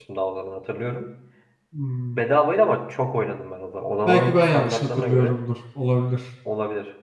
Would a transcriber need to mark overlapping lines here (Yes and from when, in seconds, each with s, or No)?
Yes, from 4.0 s